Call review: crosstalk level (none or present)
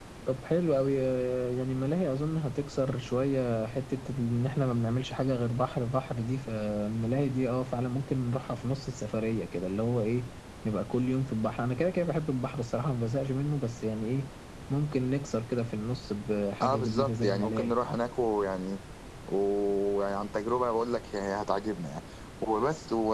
present